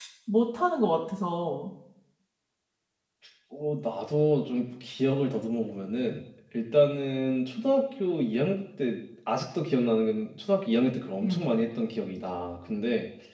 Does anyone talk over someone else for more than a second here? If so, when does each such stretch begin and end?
none

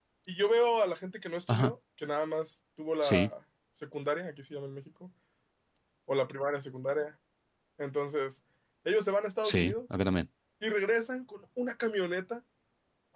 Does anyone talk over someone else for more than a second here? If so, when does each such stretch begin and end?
none

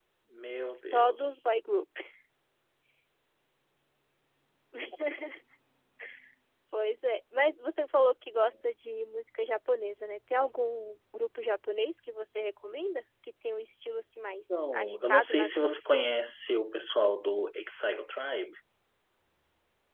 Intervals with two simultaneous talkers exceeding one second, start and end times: 14.7-16.0

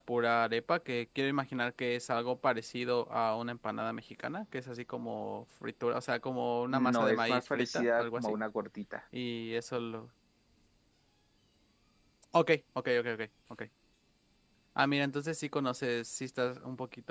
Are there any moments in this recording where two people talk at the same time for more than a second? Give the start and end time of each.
6.7-8.4

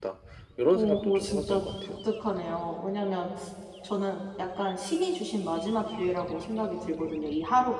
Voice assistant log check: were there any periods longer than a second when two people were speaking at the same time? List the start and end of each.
0.7-2.0

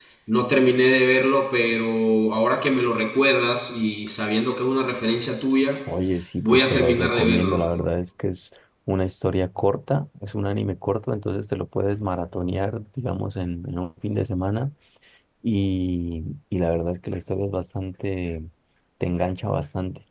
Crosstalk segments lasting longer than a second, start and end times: 6.4-7.7

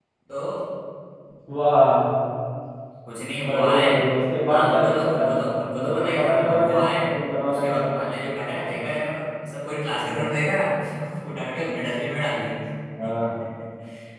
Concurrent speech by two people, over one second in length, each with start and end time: 4.5-6.9

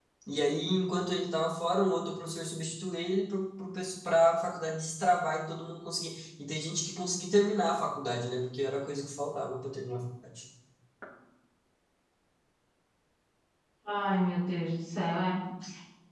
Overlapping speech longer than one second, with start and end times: none

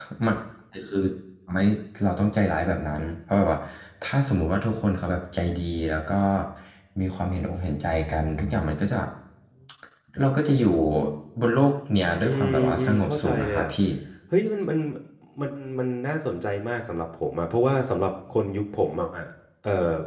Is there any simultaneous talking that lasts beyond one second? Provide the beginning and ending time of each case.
12.2-13.7

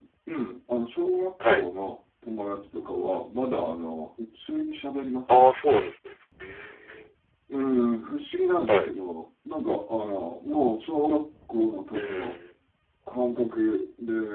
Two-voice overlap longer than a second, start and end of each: none

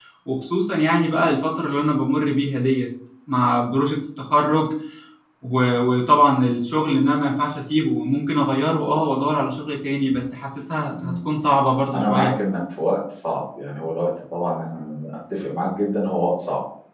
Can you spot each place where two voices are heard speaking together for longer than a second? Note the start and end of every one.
none

